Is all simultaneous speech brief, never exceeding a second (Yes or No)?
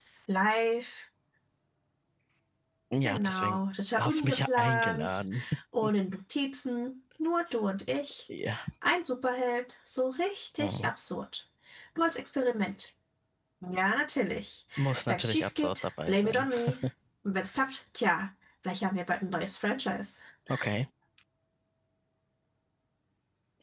No